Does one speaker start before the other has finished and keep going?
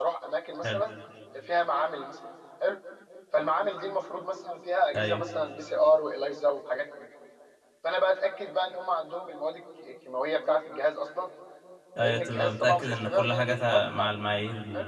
Yes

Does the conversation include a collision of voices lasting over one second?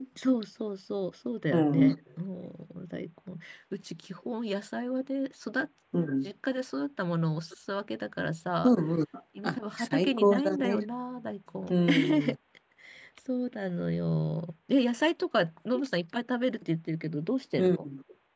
Yes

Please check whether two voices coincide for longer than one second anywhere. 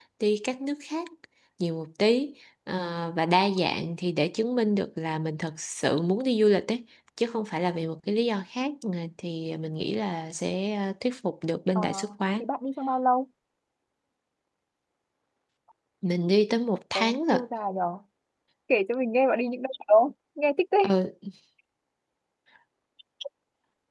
No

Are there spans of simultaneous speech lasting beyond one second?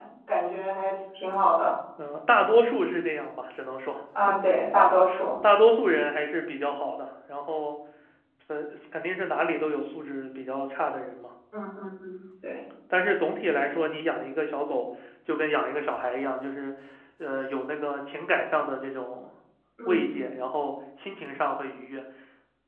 No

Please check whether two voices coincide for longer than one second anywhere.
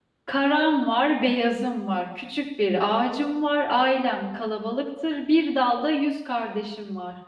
No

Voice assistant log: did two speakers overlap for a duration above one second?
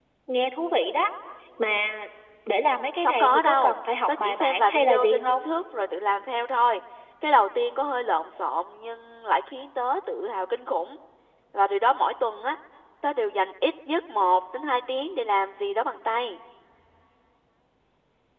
Yes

